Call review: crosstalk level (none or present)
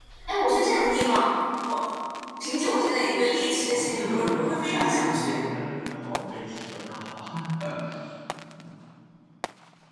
present